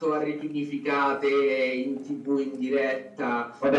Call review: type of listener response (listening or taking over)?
taking over